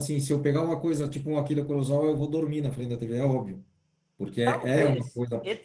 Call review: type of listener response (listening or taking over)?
taking over